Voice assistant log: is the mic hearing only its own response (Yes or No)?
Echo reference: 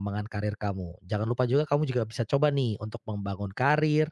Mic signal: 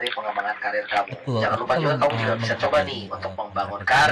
No